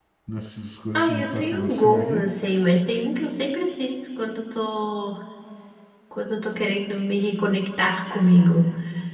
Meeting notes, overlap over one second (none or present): present